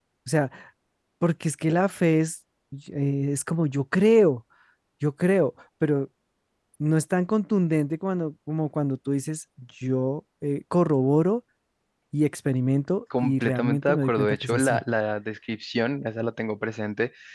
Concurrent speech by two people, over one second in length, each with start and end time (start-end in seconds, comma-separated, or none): 13.2-14.8